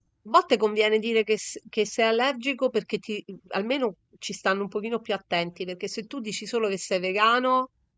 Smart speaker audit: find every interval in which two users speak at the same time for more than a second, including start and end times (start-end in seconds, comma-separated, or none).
none